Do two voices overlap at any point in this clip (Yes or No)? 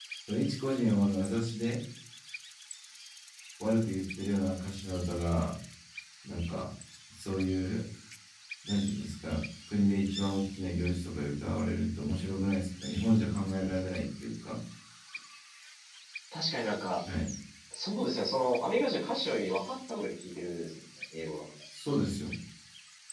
No